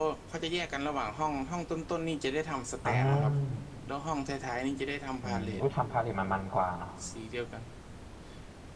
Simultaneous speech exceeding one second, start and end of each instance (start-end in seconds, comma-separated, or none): none